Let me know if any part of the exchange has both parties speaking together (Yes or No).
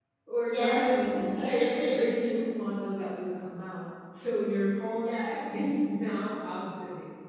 Yes